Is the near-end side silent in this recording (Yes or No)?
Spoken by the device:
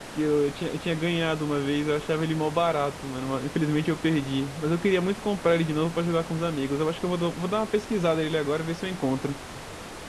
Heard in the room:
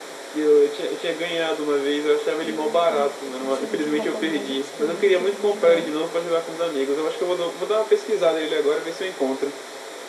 No